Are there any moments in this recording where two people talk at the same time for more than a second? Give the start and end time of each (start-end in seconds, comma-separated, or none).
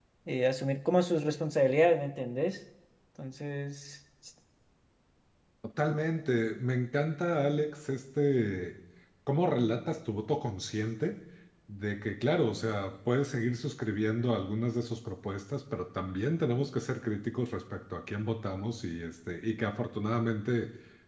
none